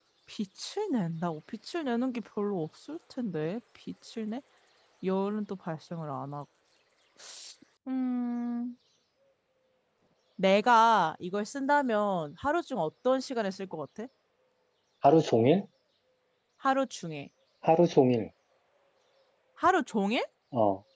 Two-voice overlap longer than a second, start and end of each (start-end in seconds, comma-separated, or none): none